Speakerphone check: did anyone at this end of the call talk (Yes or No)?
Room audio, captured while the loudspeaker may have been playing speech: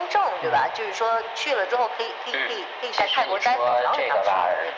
Yes